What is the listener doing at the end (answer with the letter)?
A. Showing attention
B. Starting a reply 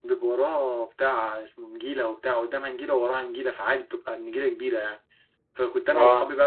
A